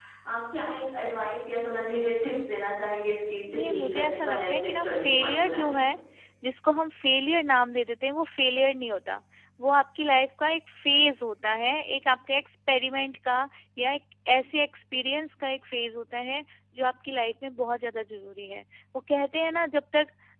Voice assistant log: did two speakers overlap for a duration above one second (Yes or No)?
Yes